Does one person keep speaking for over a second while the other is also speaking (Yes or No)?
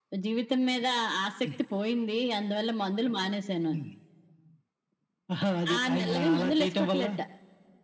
Yes